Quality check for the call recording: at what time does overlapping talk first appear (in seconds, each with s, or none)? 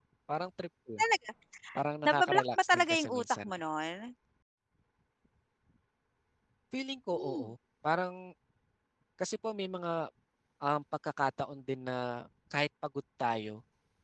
2.0 s